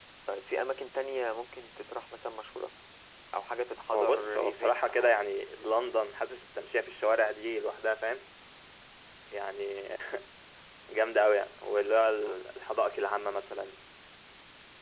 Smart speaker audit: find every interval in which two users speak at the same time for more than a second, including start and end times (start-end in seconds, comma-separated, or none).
3.9-5.2